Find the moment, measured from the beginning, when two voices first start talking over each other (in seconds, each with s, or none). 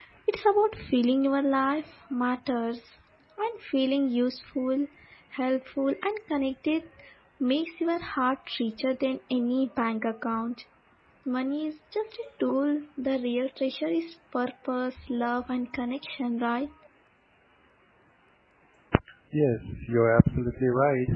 none